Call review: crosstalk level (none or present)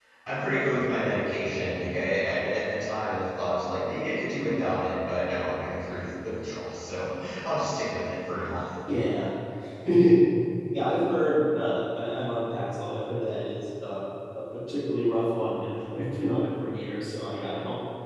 none